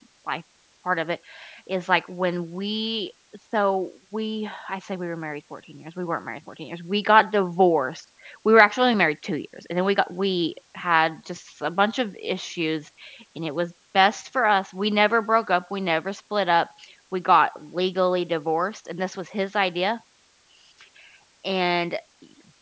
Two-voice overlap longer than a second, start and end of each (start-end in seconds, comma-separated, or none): none